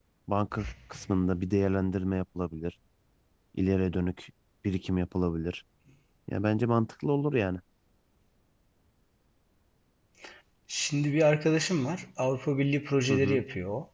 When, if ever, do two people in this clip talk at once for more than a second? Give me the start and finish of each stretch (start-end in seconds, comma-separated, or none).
none